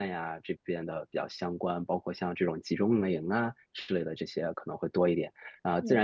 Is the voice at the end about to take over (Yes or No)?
No